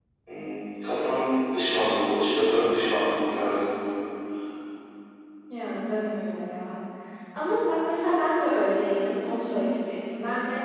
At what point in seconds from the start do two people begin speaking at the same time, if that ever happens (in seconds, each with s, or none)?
none